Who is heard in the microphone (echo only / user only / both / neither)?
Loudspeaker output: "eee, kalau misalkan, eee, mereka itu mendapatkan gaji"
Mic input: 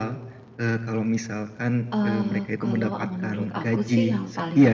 both